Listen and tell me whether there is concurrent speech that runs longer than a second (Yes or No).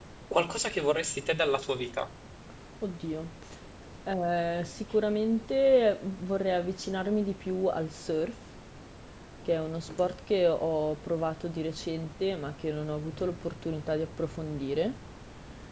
No